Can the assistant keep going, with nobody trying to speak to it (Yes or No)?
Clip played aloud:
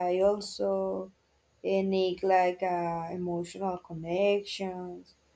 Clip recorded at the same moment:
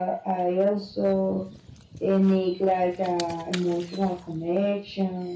Yes